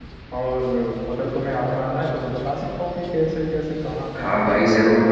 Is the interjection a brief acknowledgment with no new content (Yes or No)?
No